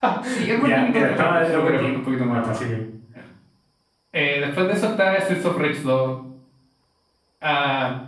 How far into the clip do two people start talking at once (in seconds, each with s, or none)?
0.6 s